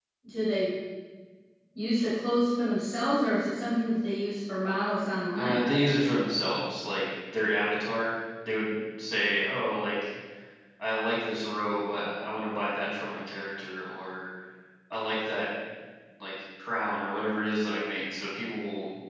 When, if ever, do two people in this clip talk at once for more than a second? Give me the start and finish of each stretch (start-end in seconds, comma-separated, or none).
none